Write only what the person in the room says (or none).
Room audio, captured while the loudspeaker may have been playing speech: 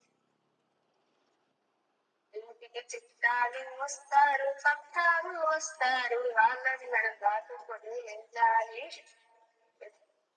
none